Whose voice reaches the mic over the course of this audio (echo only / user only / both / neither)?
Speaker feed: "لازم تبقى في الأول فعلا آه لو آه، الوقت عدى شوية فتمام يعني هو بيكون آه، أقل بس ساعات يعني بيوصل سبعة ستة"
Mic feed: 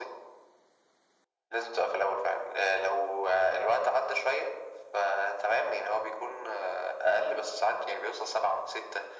echo only